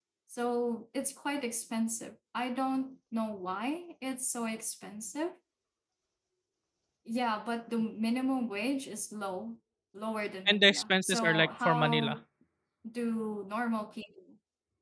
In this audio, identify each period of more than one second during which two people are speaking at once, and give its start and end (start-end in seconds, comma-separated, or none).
10.5-12.2